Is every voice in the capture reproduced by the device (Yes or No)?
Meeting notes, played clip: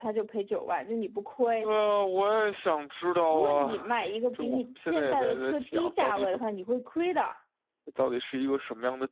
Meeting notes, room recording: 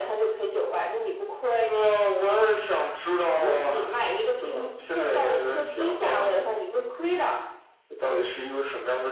Yes